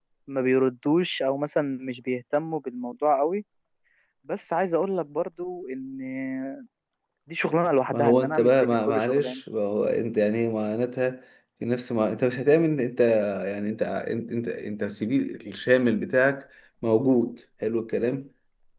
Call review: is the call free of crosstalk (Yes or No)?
No